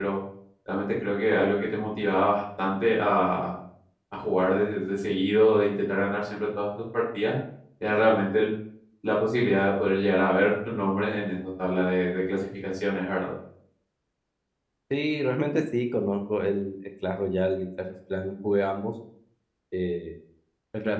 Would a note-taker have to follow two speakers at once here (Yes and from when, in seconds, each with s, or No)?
No